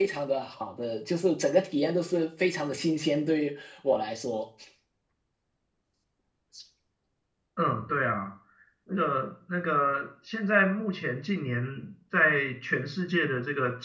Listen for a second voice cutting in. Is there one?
No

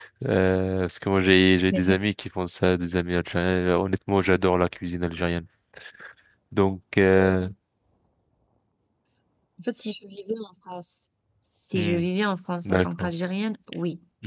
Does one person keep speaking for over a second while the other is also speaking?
No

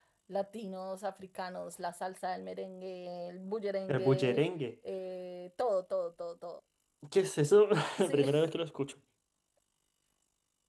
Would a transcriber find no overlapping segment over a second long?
Yes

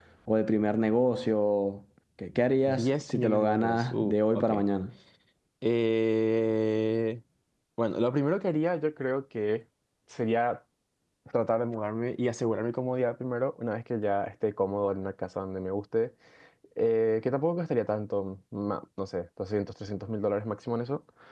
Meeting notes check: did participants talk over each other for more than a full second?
Yes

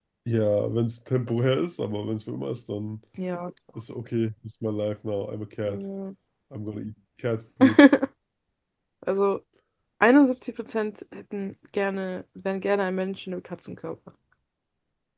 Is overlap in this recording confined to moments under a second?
Yes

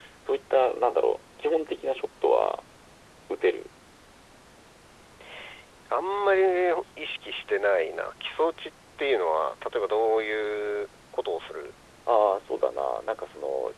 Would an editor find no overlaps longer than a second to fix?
Yes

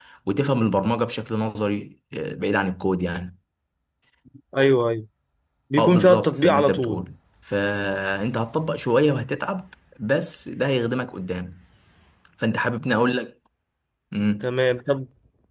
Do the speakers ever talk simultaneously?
Yes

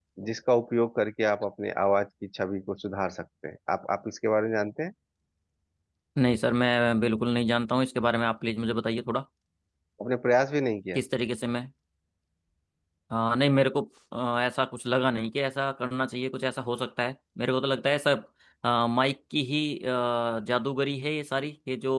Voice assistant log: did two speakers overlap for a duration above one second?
No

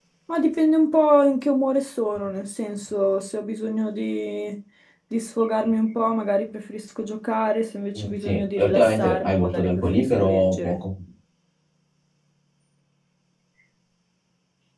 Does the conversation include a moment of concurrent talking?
Yes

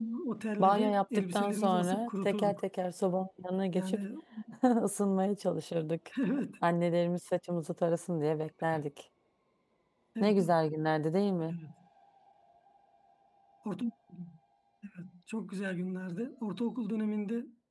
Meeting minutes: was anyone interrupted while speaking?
Yes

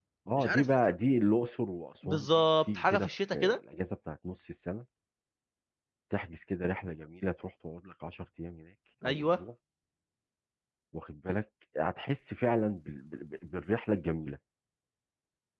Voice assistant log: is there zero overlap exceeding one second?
No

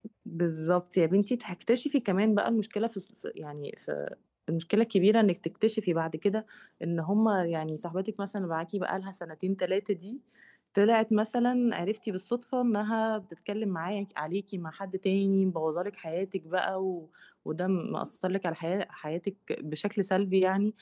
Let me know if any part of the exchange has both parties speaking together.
No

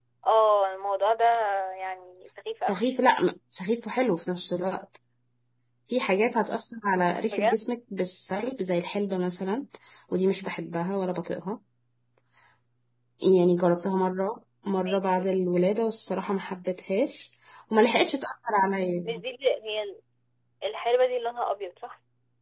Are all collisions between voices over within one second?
Yes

